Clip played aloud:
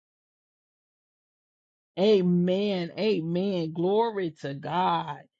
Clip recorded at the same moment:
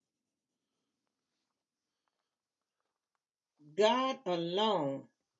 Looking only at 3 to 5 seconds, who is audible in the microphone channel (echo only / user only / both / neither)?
user only